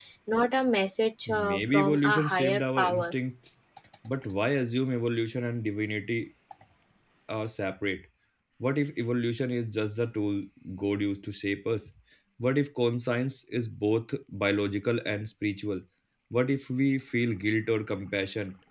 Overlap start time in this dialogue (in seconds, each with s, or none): 1.3 s